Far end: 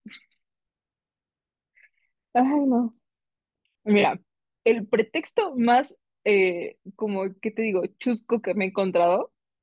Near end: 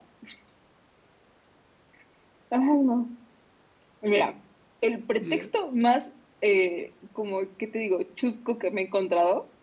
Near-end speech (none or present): present